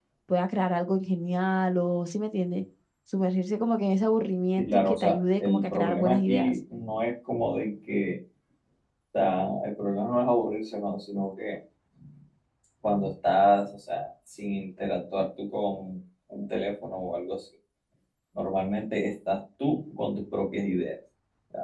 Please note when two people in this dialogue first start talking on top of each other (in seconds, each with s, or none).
4.6 s